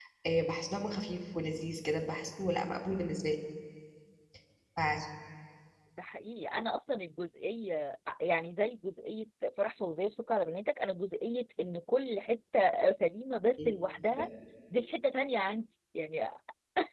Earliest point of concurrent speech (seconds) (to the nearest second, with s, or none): none